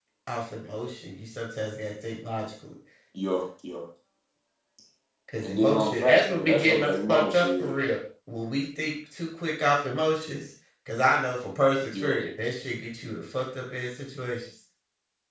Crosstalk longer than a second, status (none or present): present